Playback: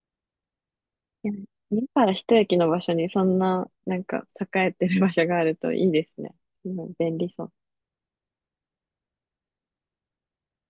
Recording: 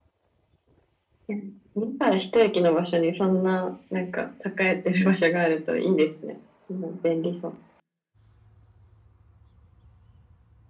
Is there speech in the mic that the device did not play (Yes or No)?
No